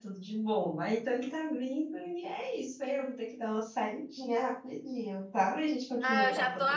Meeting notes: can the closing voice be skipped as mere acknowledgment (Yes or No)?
No